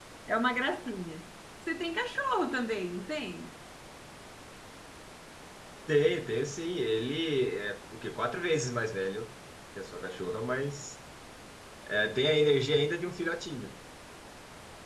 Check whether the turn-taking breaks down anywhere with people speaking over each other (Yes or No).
No